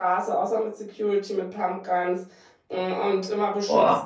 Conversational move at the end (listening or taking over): listening